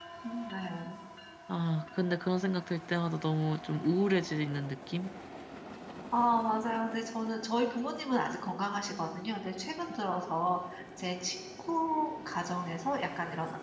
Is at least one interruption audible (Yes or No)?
No